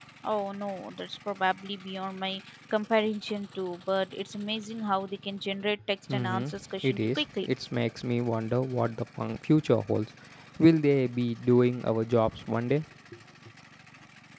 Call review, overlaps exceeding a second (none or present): present